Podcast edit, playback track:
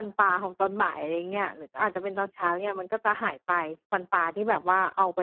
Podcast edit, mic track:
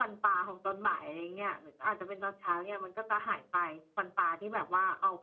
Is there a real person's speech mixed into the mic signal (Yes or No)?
No